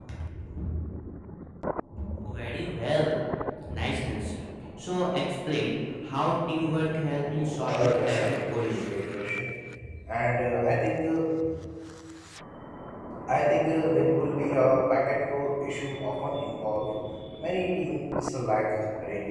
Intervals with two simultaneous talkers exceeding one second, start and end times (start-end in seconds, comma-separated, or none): 7.6-9.0